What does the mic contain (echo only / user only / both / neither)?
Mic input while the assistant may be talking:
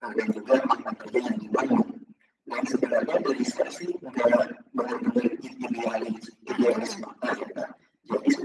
both